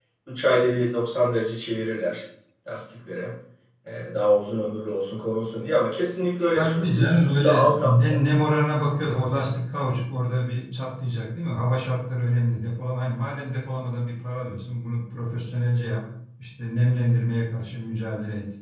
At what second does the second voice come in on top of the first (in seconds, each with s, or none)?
6.5 s